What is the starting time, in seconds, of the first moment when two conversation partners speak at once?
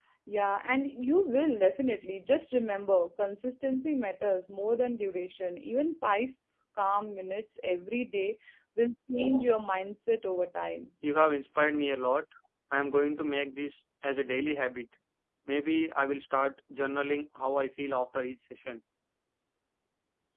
none

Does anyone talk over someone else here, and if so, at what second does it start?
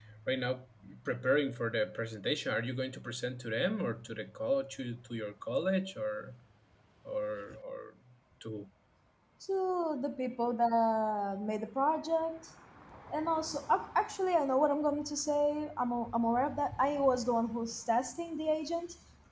none

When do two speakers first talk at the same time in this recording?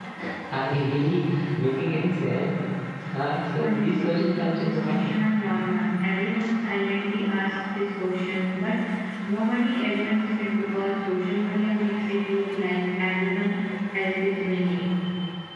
3.6 s

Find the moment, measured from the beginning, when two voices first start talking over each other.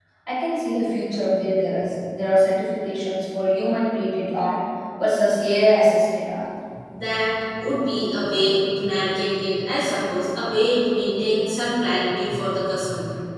none

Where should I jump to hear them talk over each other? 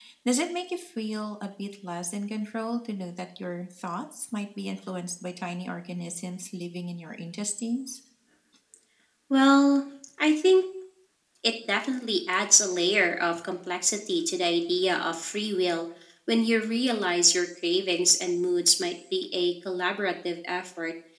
none

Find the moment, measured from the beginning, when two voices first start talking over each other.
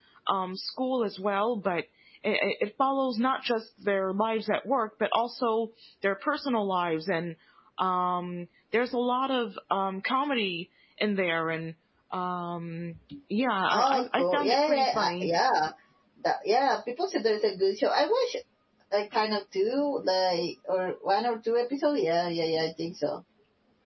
13.7 s

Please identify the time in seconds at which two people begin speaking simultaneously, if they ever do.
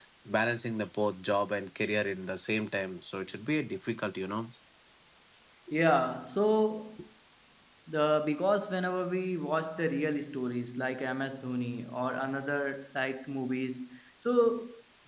none

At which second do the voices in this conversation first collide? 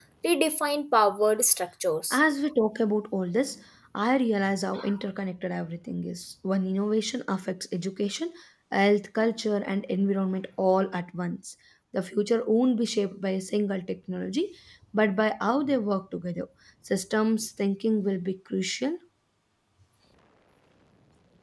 none

